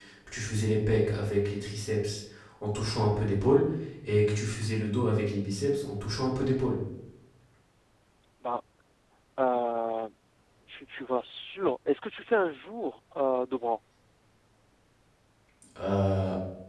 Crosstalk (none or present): none